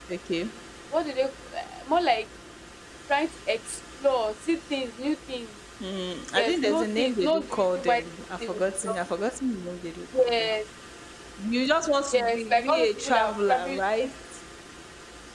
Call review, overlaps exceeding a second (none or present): present